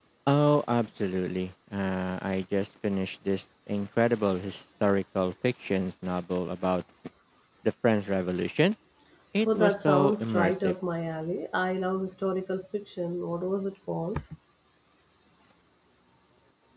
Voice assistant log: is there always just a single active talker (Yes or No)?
No